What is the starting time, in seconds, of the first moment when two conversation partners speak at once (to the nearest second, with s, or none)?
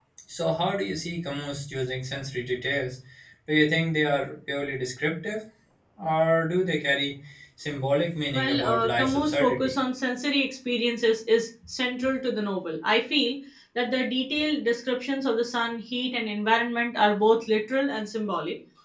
8 s